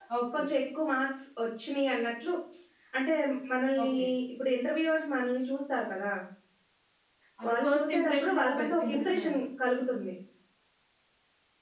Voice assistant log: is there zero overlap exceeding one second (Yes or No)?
No